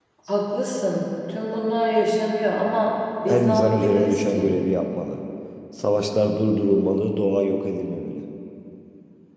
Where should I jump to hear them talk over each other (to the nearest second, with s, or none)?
3 s